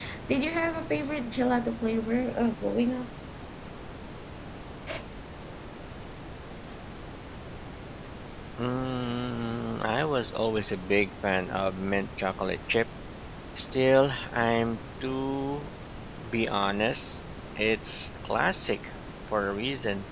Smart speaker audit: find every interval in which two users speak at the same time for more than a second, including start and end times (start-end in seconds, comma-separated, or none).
none